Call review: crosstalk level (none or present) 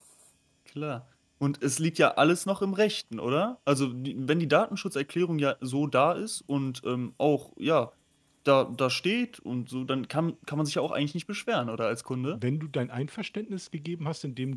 none